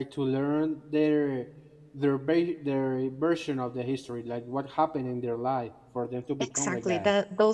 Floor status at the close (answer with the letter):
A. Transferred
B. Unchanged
A